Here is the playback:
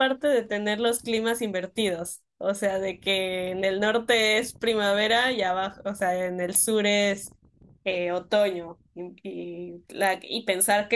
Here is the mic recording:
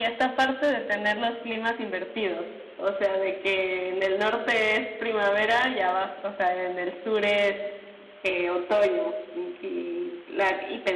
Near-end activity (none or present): none